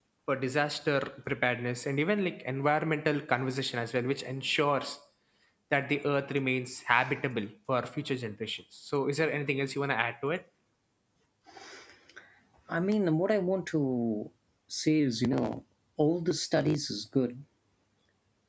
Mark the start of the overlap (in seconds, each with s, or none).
none